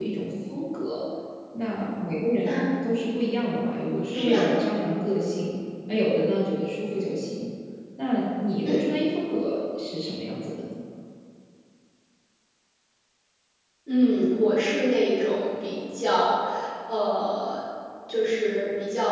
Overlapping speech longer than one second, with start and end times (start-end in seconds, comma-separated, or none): none